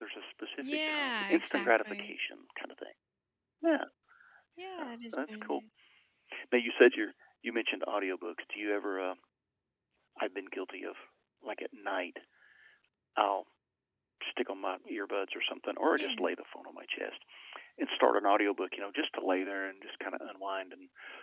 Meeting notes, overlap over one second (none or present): present